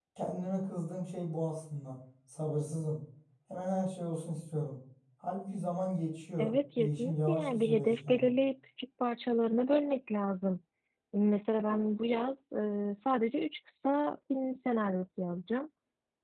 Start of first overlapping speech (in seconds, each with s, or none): 6.4 s